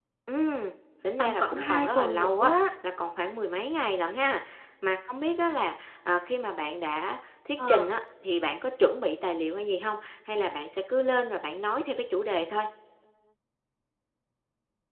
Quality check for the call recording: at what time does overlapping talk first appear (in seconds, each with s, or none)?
1.2 s